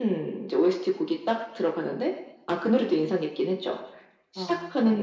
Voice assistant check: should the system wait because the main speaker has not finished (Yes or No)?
Yes